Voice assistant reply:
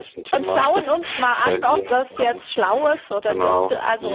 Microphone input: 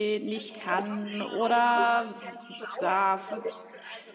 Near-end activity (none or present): present